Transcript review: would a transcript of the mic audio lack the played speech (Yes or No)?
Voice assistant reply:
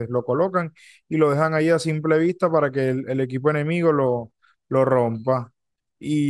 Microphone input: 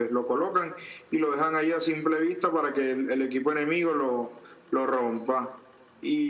No